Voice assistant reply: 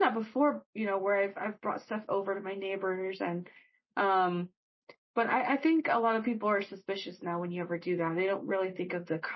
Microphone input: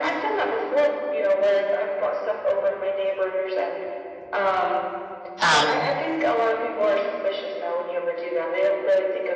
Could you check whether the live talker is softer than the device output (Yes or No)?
No